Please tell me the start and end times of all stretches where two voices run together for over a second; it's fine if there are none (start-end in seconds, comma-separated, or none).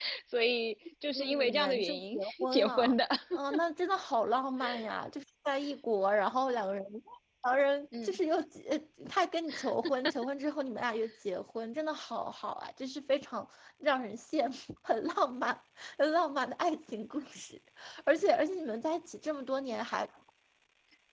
1.1-2.9